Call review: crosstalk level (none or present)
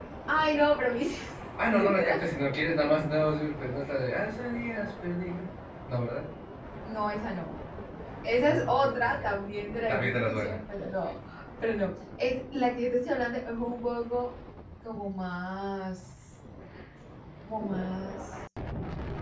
present